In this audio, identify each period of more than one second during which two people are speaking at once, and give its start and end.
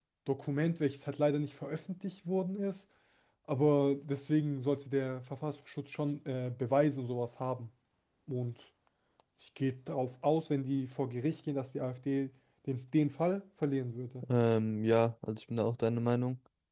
none

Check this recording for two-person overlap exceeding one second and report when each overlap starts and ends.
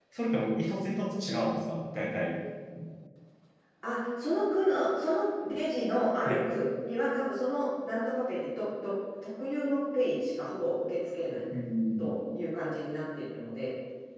none

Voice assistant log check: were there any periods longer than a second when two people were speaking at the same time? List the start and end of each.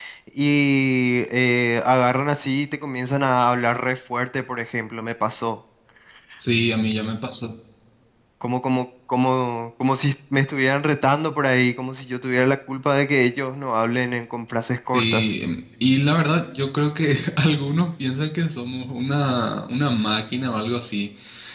none

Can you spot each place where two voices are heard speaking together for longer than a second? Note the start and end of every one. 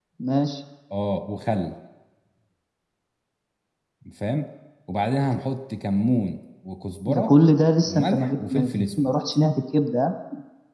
7.9-9.1

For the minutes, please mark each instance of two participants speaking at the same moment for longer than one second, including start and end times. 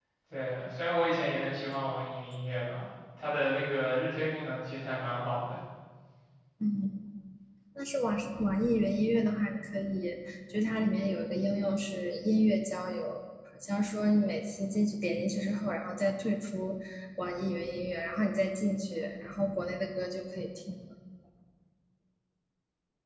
none

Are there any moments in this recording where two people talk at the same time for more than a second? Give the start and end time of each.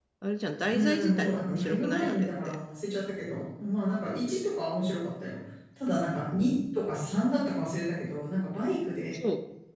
0.7-2.5

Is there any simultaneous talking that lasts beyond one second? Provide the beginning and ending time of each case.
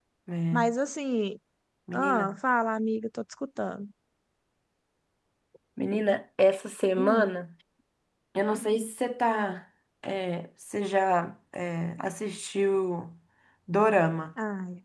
none

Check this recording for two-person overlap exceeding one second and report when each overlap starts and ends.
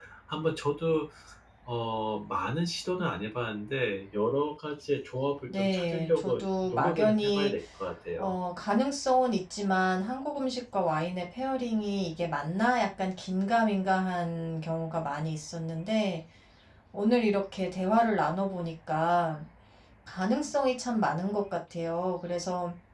5.5-7.5

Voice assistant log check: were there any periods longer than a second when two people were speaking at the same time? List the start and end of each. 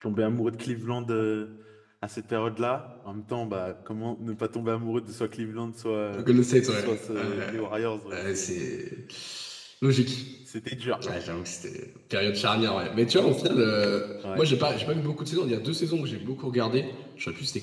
6.1-7.5

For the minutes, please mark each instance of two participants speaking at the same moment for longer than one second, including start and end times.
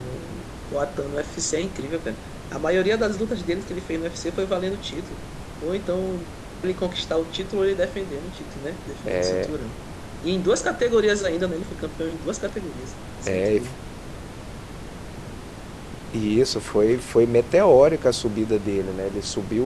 none

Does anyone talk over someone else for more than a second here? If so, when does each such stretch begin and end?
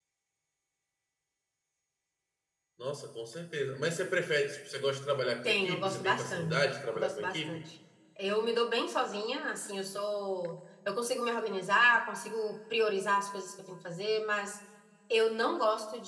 5.4-7.6

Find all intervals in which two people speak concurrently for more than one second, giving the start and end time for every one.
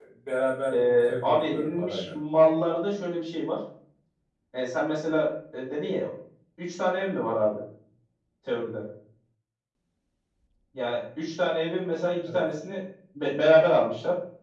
0.7-2.1

